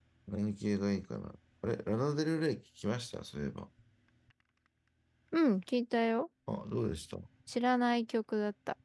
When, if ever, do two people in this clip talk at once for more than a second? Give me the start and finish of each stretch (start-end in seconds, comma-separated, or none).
none